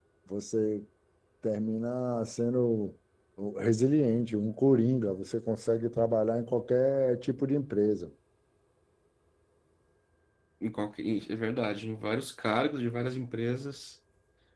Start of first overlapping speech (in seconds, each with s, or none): none